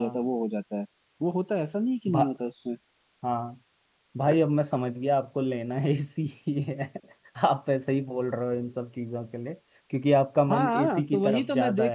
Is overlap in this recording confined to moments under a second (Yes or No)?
No